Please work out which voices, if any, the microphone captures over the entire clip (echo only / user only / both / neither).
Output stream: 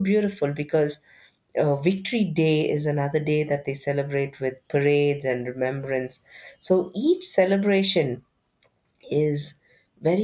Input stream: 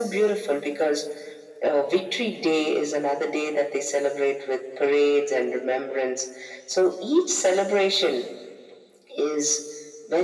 echo only